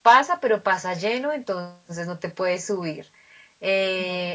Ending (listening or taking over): listening